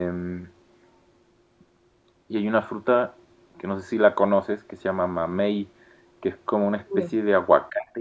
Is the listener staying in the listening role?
Yes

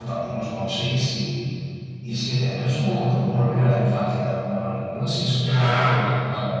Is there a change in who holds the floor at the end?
Yes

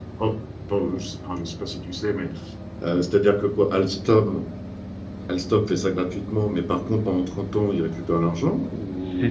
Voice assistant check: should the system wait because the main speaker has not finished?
No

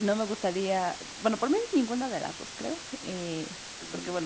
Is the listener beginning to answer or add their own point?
No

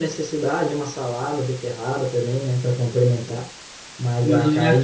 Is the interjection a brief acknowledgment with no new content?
No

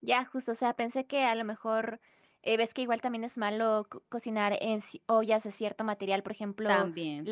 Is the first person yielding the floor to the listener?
No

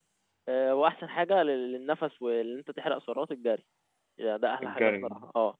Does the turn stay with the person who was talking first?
Yes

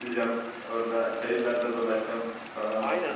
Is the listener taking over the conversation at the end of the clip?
Yes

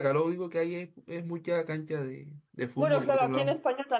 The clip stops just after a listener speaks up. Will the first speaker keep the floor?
No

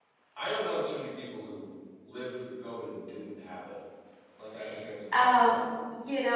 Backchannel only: No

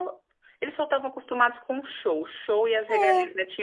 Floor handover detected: No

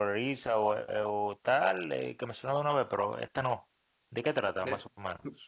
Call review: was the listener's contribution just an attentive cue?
No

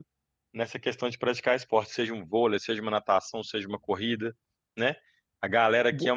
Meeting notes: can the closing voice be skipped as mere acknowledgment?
Yes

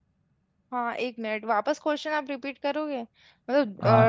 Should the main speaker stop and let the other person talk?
Yes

